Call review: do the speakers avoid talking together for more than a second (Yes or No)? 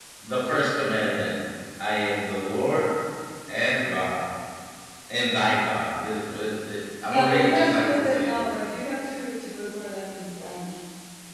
No